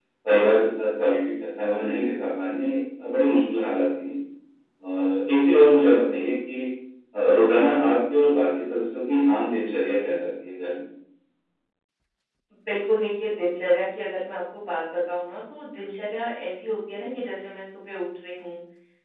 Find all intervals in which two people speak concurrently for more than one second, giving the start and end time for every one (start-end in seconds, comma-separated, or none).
none